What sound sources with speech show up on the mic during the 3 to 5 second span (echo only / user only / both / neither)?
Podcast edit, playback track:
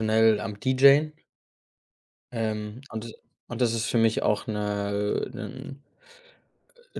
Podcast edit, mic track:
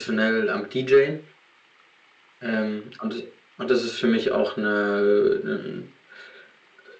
echo only